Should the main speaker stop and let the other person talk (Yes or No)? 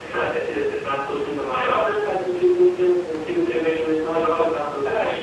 Yes